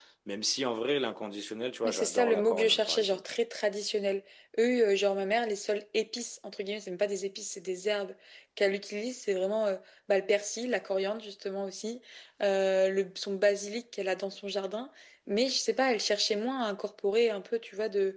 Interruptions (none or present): present